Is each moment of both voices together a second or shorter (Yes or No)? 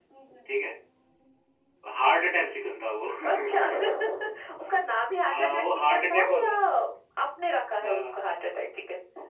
No